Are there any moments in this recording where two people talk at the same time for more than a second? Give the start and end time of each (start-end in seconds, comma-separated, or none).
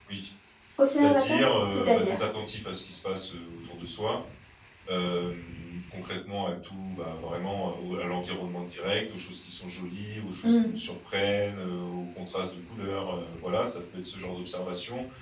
0.9-2.2